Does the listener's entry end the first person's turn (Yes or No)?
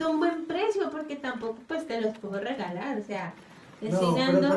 Yes